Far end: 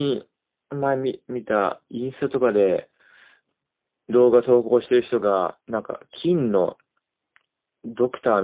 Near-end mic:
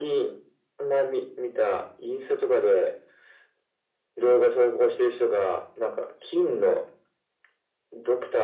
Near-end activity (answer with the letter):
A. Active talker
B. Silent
B